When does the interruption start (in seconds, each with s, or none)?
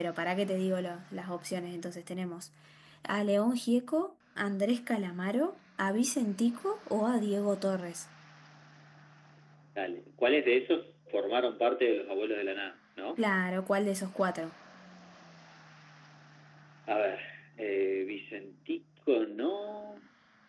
none